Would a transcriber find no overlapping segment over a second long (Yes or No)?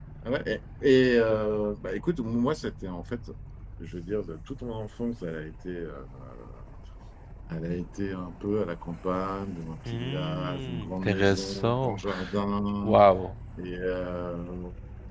No